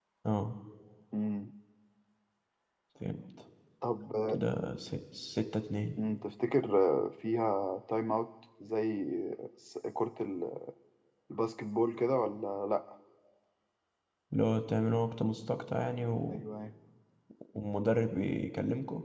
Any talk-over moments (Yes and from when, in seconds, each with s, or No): No